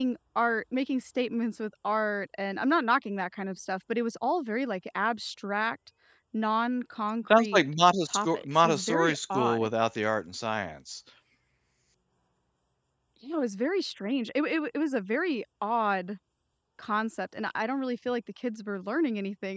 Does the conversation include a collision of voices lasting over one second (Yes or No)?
Yes